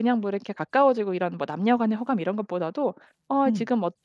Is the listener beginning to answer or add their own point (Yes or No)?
No